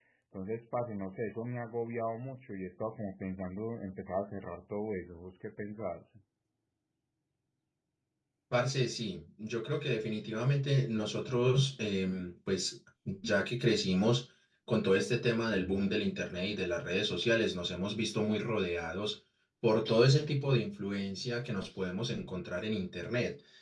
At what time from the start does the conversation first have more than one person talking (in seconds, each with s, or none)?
none